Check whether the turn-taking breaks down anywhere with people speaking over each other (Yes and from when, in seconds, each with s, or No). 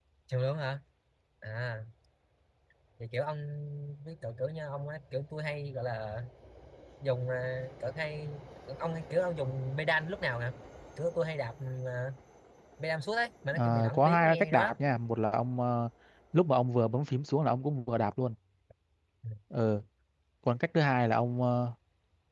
Yes, from 13.5 s